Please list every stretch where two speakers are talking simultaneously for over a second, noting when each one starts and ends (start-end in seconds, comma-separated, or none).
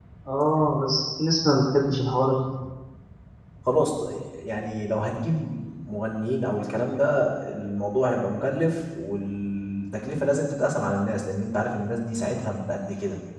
none